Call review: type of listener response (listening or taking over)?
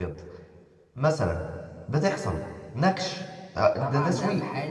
taking over